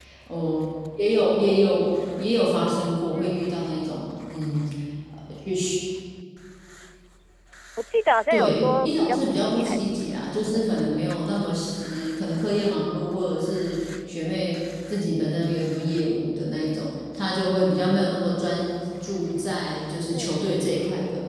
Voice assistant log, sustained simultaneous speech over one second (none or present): present